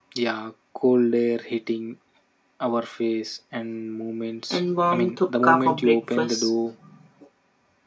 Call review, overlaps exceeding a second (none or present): present